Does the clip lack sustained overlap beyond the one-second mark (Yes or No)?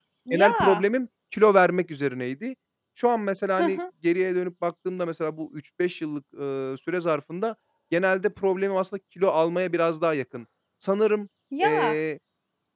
Yes